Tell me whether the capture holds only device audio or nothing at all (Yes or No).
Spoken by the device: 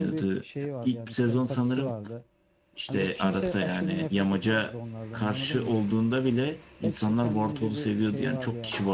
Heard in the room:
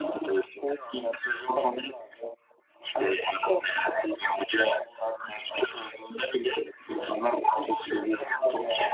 Yes